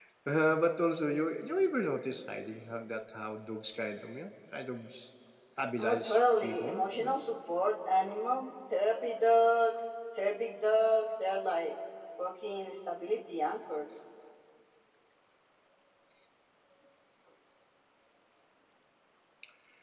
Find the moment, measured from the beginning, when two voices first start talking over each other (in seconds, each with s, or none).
5.8 s